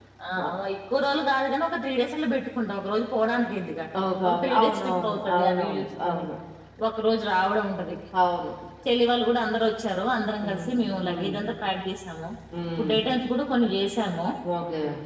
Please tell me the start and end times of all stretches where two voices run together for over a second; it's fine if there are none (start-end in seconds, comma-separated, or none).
4.3-6.2